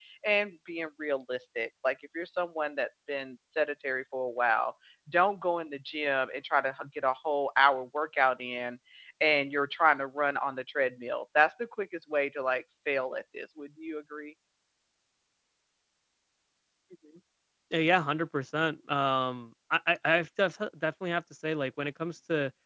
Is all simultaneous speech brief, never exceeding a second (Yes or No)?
Yes